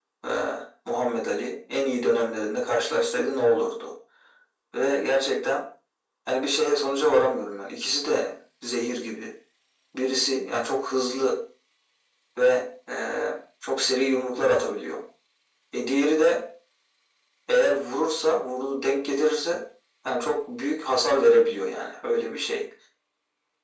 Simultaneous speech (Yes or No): No